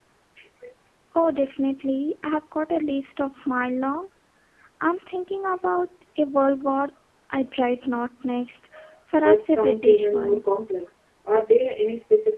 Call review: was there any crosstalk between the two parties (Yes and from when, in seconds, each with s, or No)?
Yes, from 9.1 s